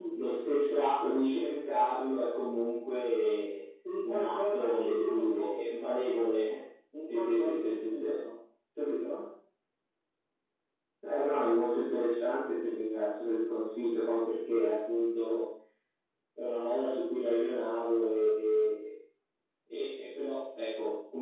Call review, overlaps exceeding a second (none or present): present